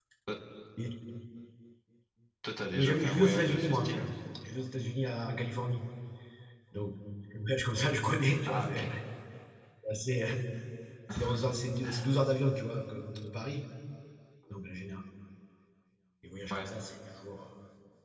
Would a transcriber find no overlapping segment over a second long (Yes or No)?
No